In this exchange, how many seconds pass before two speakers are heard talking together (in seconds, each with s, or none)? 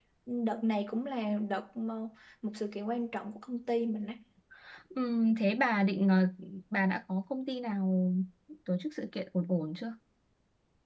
none